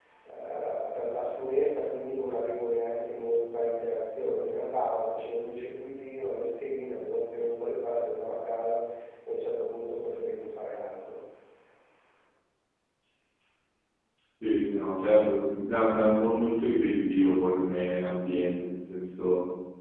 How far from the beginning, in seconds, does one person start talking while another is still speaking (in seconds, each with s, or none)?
none